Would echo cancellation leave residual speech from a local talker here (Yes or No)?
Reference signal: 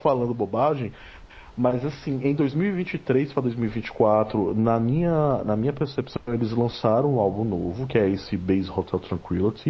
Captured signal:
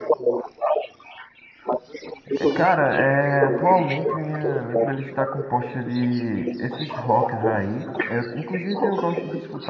Yes